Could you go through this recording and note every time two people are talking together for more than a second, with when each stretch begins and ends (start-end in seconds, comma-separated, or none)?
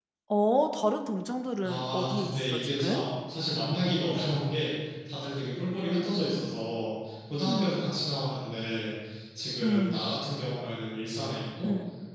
1.6-3.0